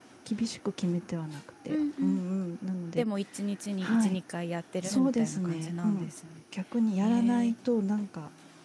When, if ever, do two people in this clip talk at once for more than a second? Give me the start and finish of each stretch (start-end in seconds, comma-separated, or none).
4.8-6.1